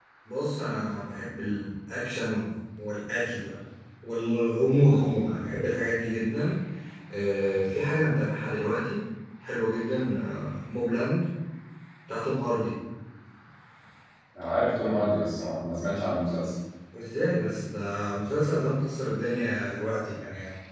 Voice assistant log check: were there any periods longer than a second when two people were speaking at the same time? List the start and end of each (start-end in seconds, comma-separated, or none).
none